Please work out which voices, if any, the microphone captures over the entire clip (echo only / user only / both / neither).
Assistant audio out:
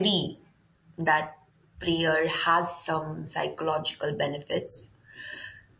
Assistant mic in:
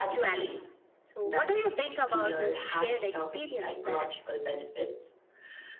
both